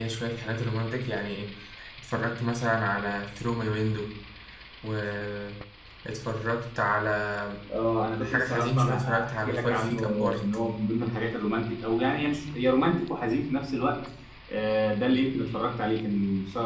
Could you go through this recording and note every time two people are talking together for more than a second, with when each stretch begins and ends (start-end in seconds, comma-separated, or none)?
8.2-10.4